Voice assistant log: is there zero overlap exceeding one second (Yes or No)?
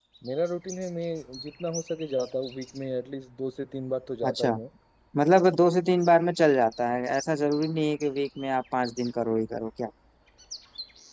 Yes